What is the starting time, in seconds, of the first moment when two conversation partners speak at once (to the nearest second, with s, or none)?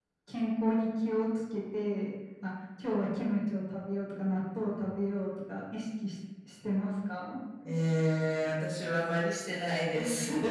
none